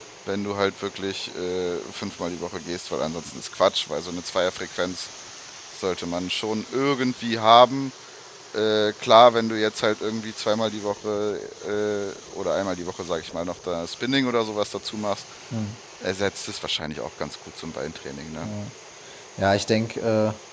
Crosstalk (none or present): none